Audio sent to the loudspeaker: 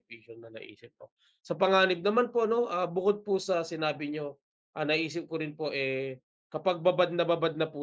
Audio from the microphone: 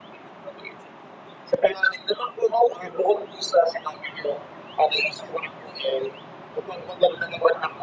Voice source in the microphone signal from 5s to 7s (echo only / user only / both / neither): echo only